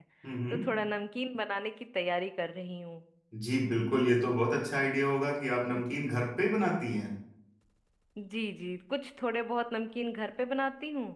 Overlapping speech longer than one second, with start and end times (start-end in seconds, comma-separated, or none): none